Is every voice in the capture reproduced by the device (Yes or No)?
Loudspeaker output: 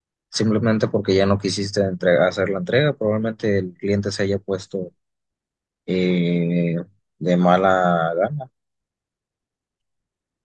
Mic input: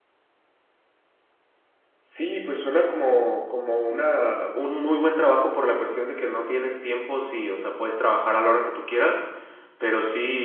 No